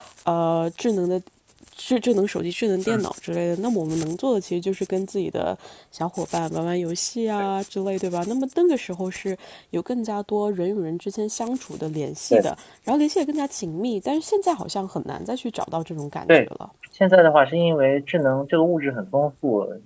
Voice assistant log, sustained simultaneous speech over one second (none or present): none